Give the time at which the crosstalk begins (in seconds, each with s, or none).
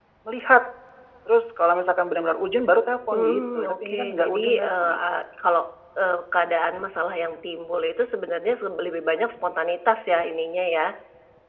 3.1 s